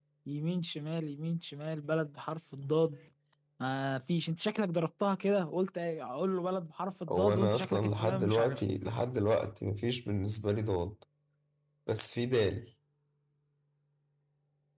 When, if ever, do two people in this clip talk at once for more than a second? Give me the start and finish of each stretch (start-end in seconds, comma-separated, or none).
7.1-8.6